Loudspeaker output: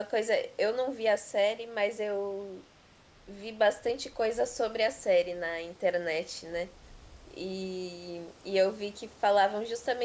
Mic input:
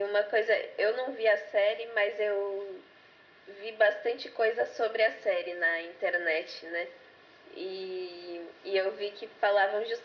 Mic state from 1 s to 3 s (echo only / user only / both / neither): echo only